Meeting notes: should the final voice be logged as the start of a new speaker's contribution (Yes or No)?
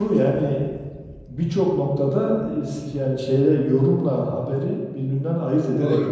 Yes